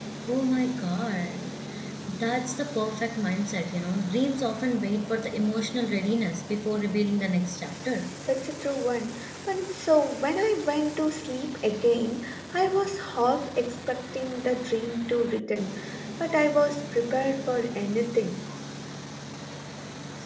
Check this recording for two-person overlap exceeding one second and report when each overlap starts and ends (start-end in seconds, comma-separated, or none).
none